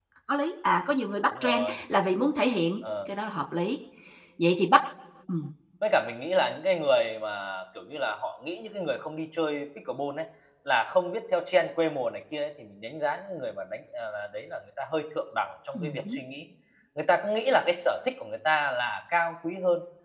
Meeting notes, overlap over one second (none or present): none